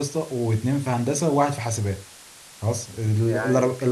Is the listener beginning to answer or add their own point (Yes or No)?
No